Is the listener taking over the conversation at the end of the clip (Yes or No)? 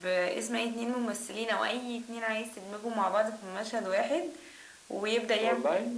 No